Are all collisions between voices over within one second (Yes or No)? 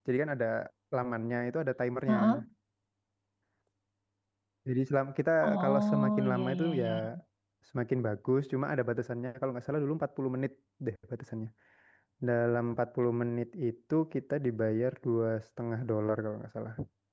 No